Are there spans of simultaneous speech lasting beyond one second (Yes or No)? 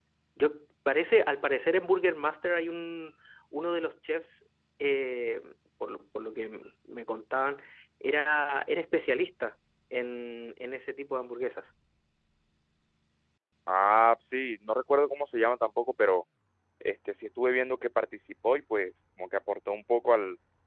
No